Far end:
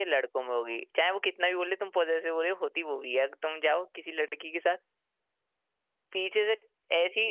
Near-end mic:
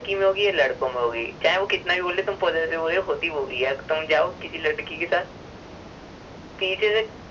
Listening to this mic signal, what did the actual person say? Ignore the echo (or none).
none